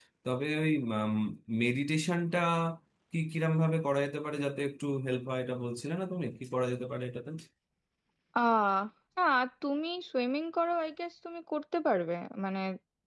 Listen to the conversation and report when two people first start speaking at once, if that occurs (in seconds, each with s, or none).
none